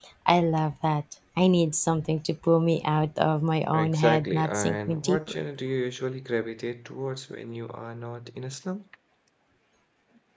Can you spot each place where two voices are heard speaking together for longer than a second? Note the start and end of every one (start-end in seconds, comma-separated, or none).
3.7-5.4